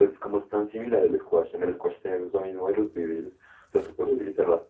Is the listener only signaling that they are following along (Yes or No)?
Yes